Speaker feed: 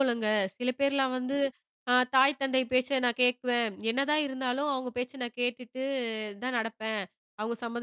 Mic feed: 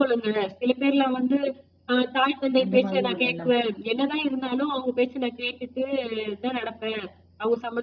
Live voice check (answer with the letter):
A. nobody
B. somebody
B